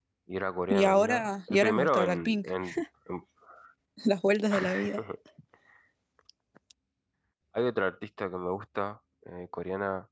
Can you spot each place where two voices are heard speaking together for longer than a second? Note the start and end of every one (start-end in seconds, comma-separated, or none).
0.7-2.5